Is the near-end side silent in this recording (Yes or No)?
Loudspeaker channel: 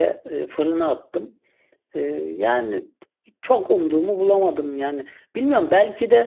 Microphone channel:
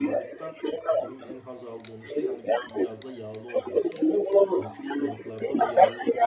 No